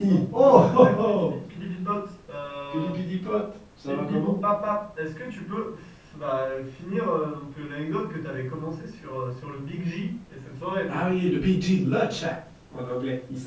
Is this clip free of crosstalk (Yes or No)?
No